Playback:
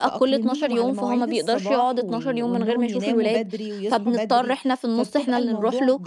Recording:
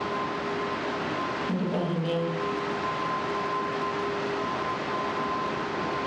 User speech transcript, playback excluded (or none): متفهّماه،